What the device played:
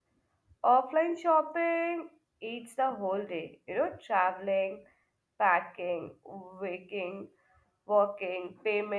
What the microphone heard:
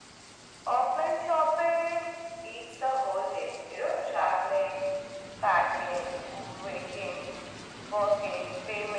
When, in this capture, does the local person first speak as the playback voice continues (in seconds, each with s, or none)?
none